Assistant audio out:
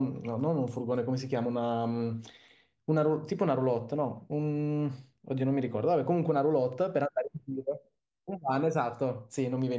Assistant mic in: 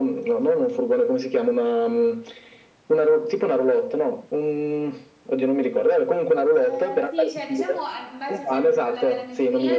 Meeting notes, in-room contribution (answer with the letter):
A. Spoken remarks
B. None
A